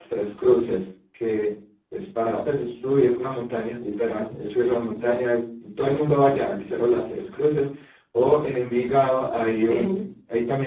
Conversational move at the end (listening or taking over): listening